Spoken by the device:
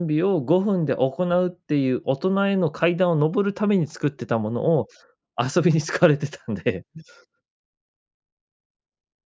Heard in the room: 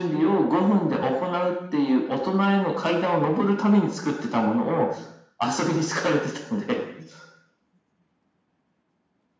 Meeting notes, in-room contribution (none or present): none